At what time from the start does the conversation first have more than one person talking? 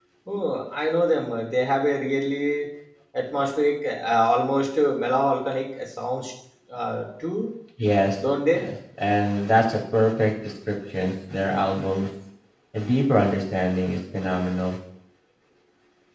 none

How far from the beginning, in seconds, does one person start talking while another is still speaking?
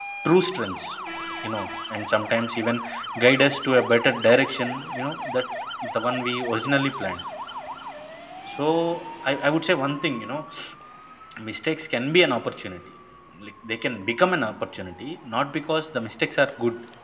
none

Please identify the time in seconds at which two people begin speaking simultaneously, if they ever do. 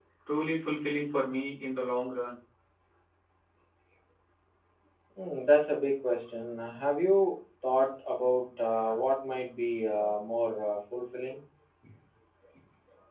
none

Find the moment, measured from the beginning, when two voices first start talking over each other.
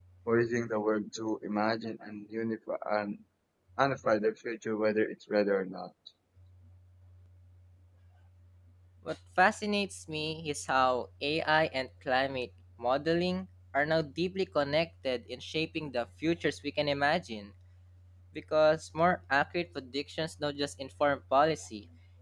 none

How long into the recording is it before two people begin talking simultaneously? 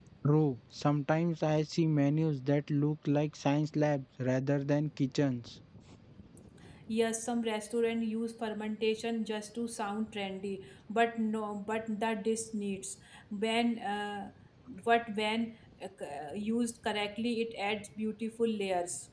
none

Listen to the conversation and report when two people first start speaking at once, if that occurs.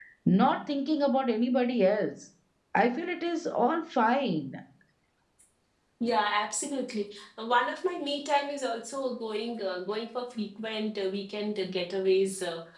none

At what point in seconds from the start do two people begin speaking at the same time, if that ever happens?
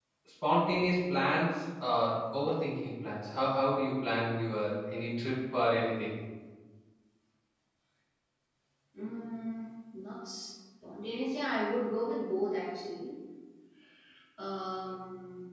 none

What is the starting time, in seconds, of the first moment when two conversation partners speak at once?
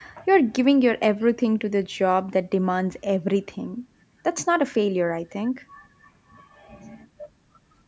none

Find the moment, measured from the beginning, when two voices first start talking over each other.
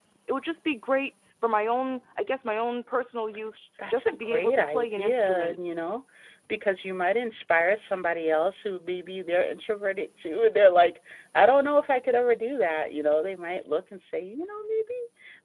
3.8 s

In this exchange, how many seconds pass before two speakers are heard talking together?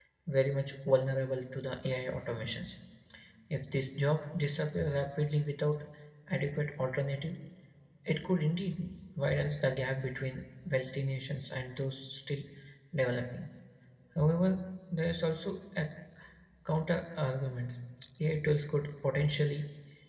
none

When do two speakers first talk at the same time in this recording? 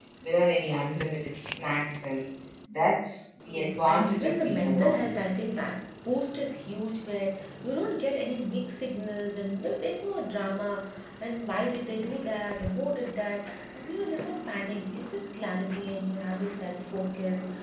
3.4 s

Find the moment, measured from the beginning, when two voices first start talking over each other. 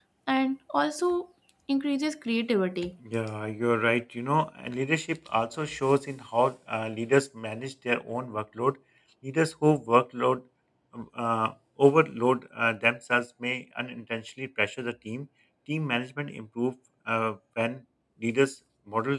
none

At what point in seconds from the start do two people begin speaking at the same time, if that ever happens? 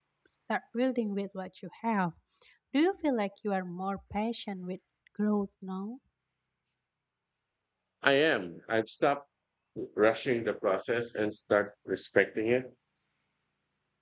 none

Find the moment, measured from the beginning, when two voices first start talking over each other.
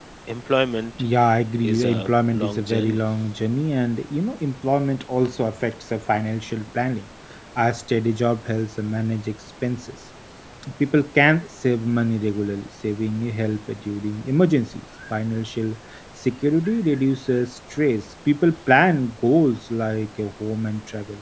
1.6 s

